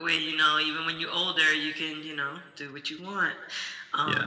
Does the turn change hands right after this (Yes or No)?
Yes